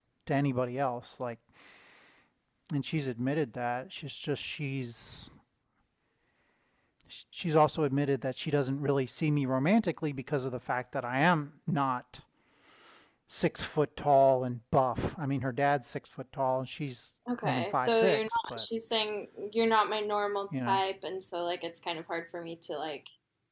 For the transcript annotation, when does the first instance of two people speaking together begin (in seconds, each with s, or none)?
17.4 s